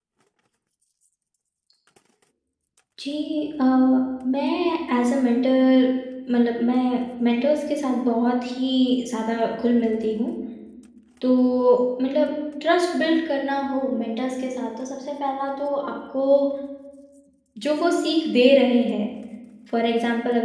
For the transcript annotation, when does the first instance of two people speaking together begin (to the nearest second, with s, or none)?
none